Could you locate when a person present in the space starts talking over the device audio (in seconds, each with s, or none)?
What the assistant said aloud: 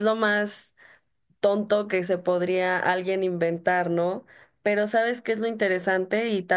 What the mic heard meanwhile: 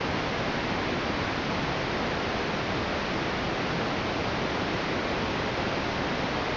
none